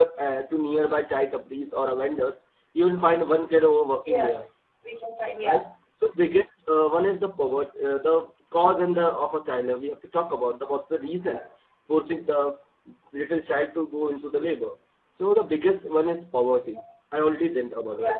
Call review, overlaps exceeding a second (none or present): none